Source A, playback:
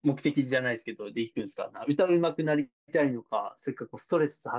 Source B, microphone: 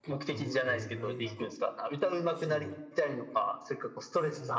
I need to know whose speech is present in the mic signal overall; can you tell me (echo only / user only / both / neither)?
both